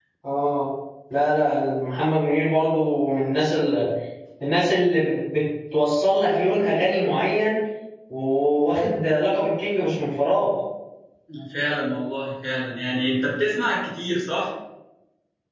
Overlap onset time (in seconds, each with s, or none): none